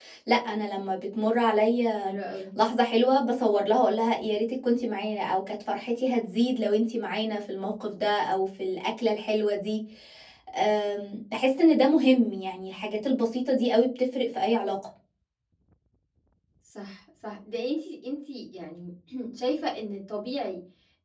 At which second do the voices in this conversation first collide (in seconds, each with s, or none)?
none